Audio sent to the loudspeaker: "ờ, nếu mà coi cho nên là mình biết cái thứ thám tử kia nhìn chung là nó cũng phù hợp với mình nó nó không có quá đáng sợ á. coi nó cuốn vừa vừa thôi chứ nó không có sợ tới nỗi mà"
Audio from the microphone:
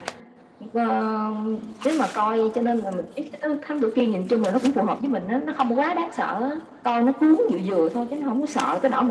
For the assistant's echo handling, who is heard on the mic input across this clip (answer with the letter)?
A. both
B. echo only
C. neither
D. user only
B